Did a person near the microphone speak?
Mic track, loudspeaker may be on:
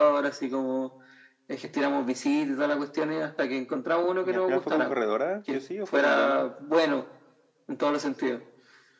Yes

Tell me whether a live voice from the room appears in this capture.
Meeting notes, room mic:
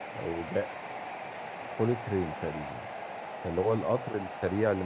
Yes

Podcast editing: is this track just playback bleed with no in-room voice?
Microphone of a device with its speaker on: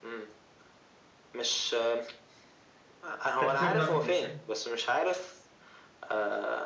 No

